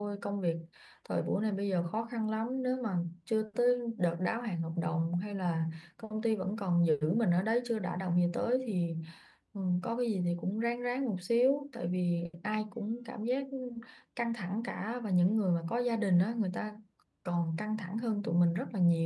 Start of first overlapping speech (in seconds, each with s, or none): none